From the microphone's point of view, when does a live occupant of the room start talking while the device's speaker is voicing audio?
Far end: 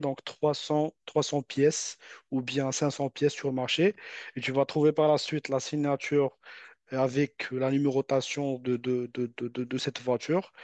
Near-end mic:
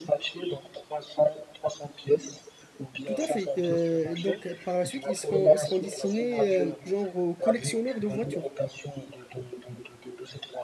3.0 s

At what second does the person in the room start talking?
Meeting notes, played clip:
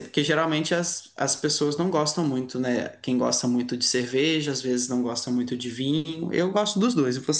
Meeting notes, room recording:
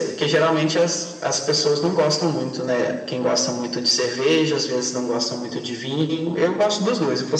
none

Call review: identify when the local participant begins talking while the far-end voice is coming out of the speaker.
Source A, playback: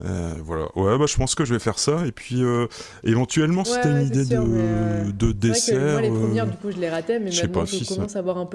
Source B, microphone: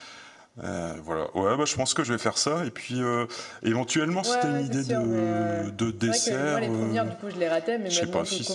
none

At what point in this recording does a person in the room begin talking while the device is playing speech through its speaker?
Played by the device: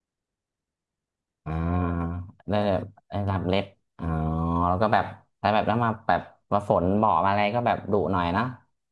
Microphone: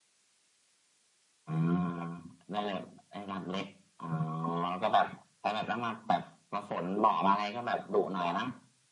none

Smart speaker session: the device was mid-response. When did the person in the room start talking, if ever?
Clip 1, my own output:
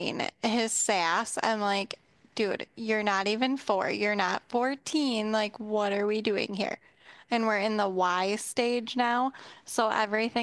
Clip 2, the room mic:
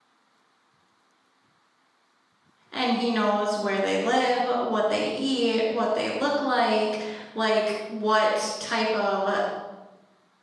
2.7 s

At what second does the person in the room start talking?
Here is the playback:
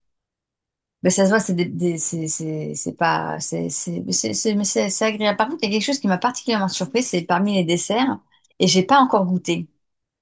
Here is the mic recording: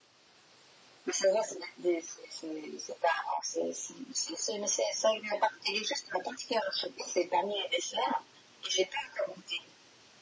none

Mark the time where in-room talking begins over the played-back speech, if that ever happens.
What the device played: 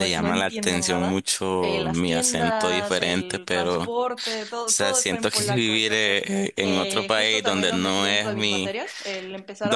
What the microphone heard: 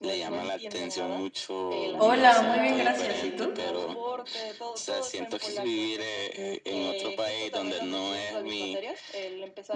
2.0 s

